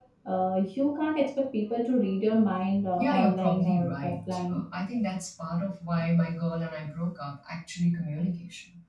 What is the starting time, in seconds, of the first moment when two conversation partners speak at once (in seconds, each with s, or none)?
3.0 s